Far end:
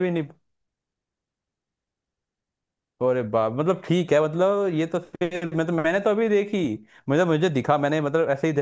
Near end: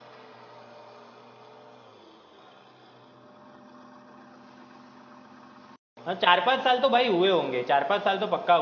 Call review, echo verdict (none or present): none